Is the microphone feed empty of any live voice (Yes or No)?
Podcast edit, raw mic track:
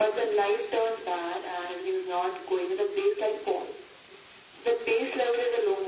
Yes